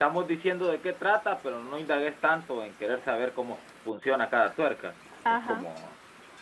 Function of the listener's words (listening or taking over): listening